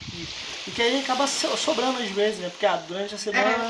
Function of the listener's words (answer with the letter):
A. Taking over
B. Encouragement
B